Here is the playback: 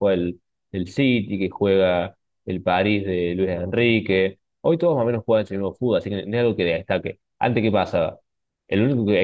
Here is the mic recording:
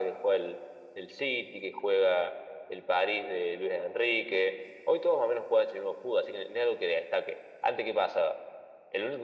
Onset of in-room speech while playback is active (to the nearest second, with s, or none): none